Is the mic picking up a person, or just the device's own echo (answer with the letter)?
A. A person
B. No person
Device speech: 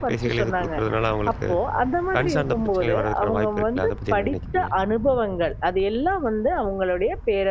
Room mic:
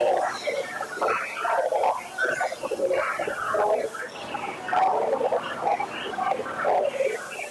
B